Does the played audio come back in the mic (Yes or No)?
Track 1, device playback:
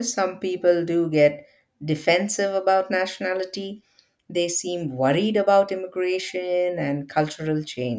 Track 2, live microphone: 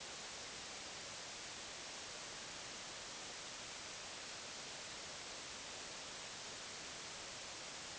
No